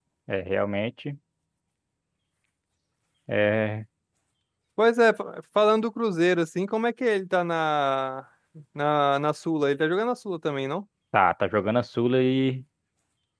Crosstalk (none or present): none